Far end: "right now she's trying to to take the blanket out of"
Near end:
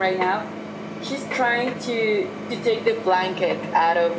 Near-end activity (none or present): none